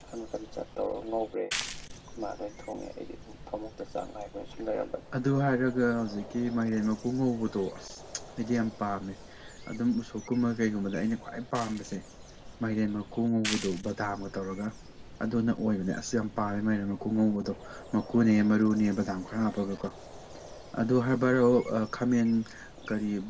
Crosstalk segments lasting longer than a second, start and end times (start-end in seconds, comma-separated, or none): none